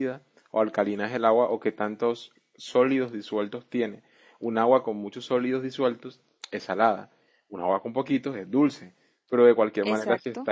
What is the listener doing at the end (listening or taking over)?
listening